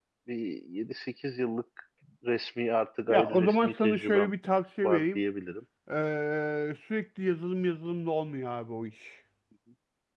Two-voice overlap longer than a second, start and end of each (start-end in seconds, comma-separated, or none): 3.1-4.3